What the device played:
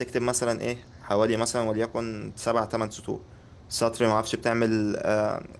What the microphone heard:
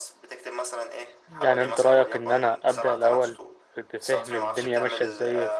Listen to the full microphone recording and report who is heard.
both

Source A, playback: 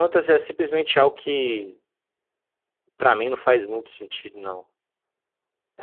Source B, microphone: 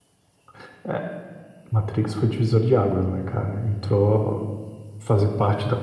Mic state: user only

